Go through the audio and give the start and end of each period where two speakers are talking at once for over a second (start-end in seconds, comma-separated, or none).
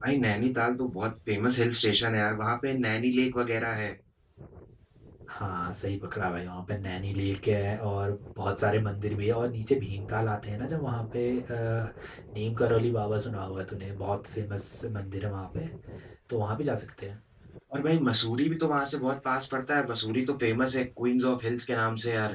none